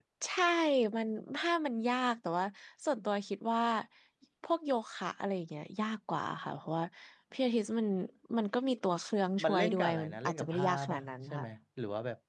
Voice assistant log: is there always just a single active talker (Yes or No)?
No